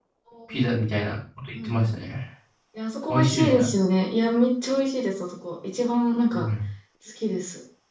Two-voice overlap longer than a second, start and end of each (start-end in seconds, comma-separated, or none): none